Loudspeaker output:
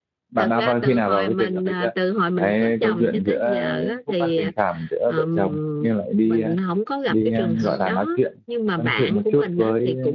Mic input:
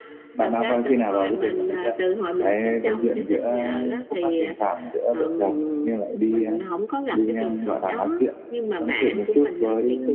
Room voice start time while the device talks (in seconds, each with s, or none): none